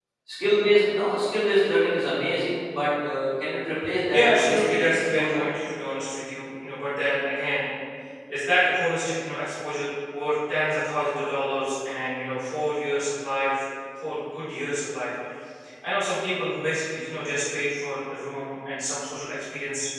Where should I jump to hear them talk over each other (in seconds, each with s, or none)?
4.1 s